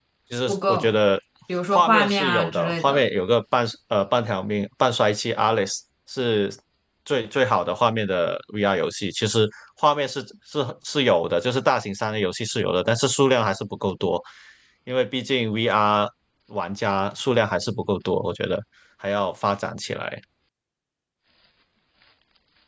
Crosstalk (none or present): present